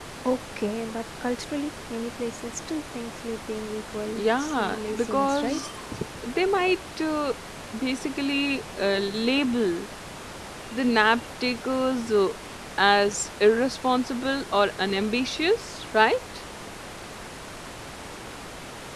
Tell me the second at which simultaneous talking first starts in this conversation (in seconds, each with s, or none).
4.2 s